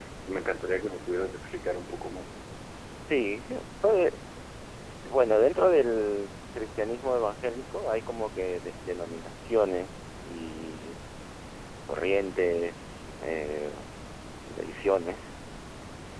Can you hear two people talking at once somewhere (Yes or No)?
No